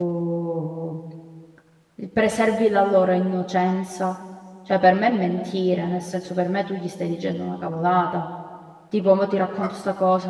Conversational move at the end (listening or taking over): listening